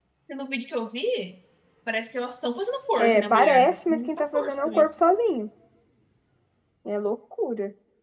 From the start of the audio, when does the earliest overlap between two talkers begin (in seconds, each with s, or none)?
3.0 s